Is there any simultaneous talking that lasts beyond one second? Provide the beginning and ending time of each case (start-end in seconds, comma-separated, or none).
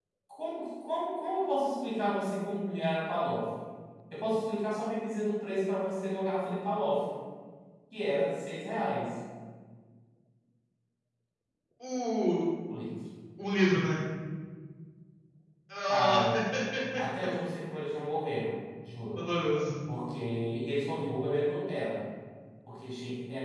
none